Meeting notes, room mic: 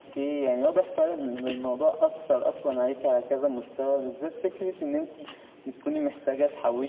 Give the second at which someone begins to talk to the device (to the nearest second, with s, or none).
none